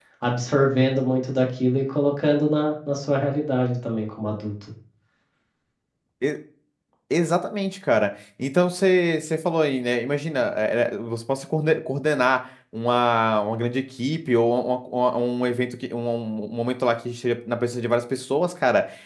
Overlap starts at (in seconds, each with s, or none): none